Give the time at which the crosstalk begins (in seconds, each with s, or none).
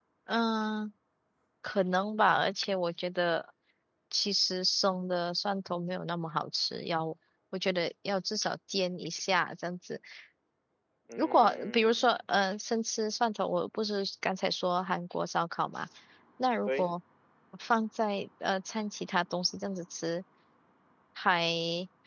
11.1 s